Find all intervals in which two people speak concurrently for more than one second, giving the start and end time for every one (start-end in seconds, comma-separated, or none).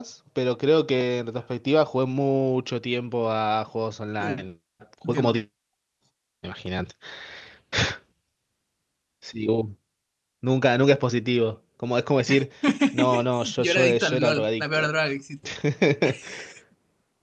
13.6-14.9